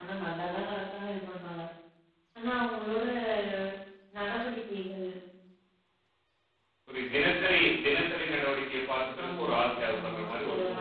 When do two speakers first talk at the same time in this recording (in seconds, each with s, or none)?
9.2 s